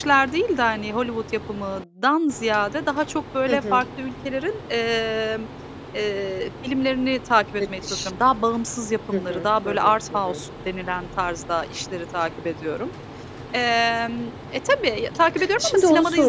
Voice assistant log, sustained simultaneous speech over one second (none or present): present